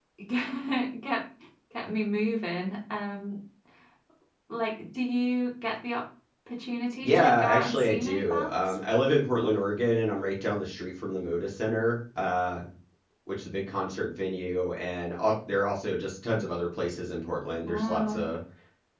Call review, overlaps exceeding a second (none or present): present